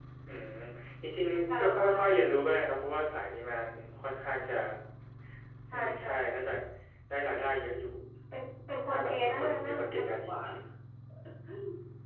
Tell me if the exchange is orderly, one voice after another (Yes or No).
No